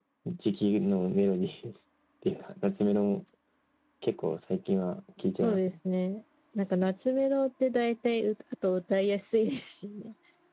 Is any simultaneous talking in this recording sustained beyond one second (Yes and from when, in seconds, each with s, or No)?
No